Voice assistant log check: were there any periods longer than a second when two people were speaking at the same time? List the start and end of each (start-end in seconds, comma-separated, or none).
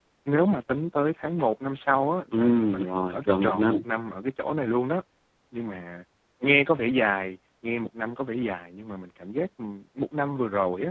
2.3-3.8